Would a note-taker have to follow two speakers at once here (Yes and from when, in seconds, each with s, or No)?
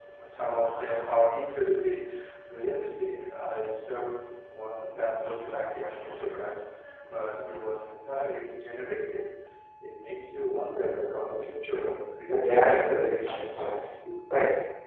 Yes, from 12.3 s